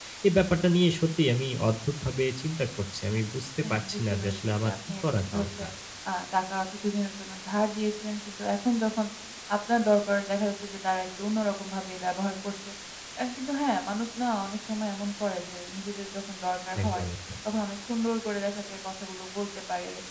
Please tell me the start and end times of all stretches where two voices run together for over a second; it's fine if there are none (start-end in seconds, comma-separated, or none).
3.7-5.6